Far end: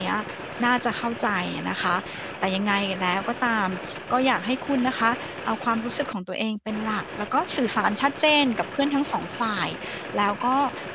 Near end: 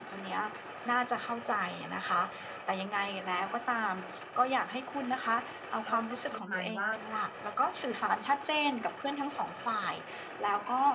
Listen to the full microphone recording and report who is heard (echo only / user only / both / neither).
both